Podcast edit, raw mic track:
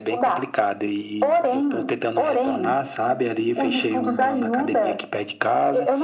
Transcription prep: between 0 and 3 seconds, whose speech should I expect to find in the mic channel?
echo only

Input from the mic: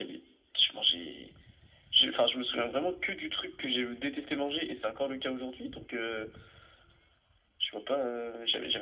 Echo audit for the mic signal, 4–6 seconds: echo only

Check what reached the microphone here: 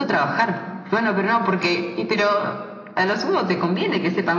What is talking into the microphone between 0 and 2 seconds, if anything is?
echo only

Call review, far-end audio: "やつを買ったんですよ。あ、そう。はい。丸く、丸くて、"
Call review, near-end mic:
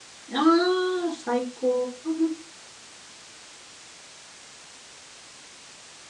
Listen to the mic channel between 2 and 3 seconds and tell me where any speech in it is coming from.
user only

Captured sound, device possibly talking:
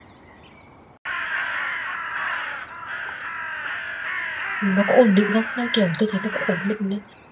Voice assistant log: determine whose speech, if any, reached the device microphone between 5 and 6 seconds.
user only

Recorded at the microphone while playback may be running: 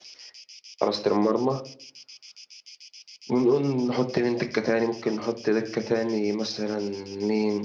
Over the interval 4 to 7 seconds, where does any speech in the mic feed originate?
user only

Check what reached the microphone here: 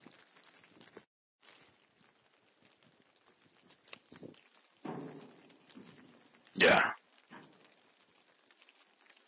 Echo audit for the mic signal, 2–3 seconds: neither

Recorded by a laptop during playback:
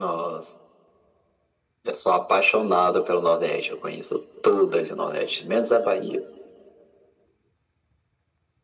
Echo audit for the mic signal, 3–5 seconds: echo only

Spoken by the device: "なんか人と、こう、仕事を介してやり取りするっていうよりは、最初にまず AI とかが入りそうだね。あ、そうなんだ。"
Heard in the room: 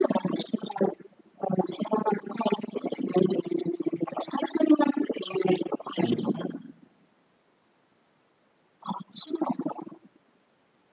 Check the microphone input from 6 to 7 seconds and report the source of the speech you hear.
both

